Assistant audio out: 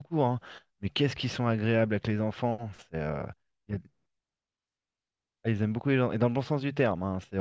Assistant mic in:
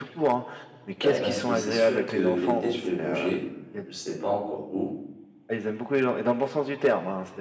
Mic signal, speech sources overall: both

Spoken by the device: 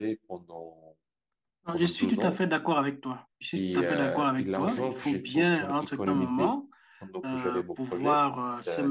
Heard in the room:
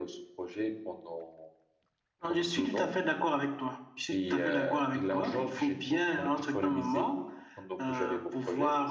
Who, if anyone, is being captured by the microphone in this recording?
echo only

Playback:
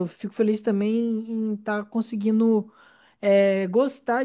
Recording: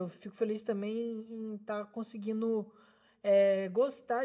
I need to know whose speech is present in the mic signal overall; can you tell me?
echo only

